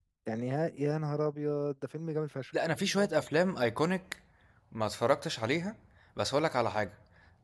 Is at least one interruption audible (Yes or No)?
No